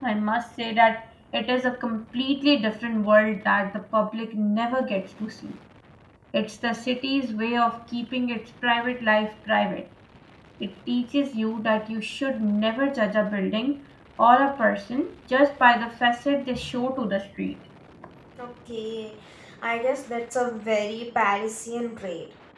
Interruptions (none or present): none